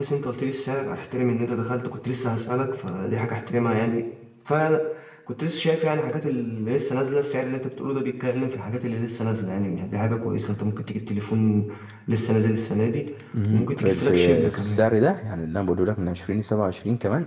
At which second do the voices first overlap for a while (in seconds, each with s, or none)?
13.5 s